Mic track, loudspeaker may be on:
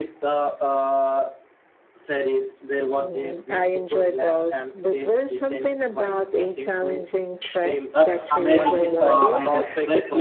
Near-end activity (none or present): present